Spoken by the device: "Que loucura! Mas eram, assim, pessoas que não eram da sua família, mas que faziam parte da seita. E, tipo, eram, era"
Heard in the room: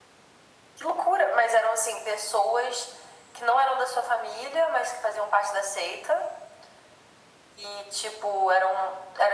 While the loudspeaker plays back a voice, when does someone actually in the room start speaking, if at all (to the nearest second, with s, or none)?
none